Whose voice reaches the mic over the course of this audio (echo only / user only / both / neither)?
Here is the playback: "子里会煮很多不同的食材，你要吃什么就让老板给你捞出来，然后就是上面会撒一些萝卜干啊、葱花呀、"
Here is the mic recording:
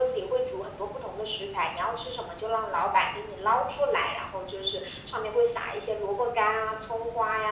echo only